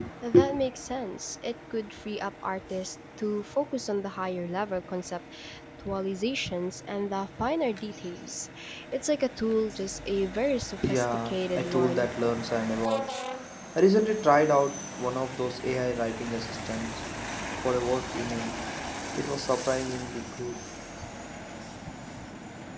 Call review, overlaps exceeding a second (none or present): present